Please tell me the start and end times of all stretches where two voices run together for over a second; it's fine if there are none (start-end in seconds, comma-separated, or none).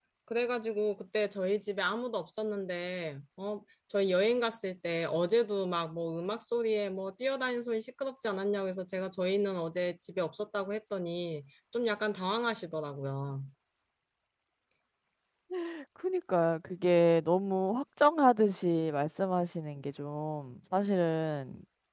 none